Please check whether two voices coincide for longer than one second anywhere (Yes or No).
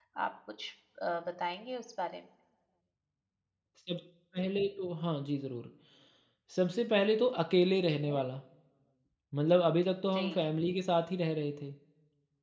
No